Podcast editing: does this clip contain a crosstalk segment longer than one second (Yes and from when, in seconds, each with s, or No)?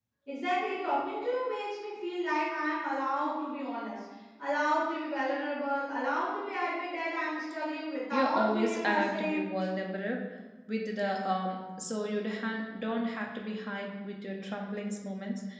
Yes, from 8.1 s